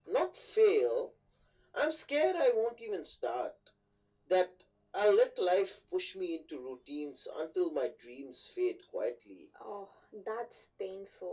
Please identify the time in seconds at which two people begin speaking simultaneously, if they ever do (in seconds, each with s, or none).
none